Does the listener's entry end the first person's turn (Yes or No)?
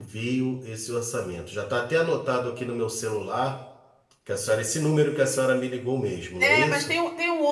Yes